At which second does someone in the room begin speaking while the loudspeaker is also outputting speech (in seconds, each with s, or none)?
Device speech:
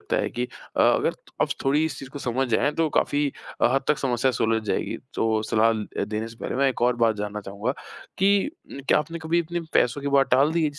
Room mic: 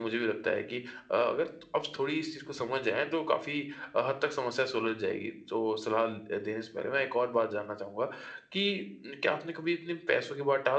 none